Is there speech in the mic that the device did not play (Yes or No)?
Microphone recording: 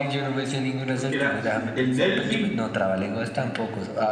Yes